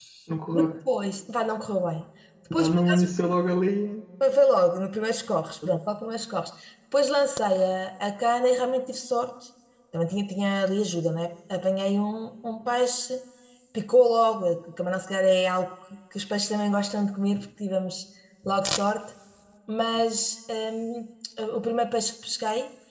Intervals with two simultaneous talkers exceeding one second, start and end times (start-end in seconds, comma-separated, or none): none